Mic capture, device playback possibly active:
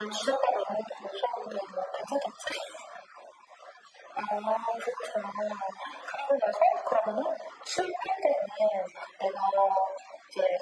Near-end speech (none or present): none